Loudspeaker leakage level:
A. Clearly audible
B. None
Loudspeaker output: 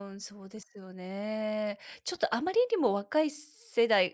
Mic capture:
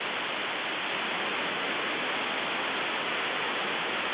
B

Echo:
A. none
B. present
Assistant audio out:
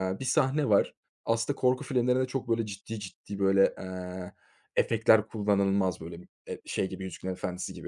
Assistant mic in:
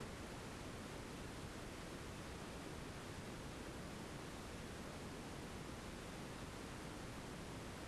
A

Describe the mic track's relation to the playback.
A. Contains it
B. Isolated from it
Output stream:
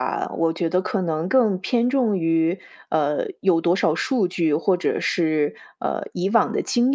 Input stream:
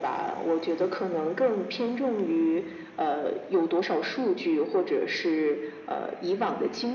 A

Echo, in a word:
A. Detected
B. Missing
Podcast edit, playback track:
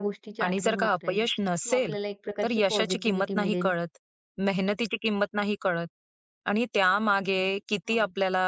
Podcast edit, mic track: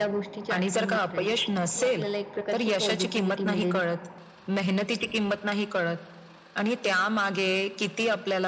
A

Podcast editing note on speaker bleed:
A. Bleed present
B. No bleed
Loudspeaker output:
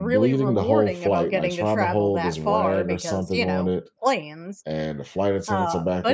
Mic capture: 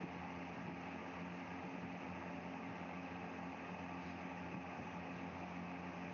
B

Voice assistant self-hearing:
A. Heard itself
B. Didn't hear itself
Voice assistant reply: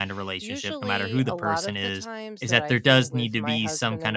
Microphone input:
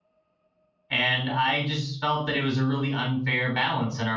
B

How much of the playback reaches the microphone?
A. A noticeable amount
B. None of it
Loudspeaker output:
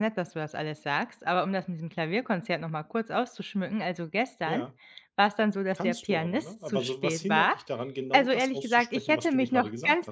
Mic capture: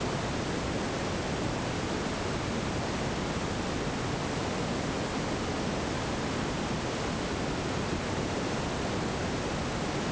B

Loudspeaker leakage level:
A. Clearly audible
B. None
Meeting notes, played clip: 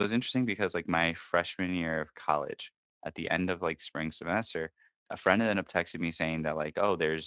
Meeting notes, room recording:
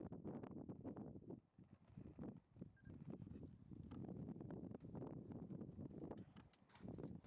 B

